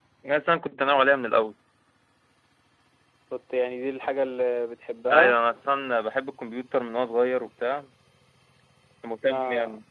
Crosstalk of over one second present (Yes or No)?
No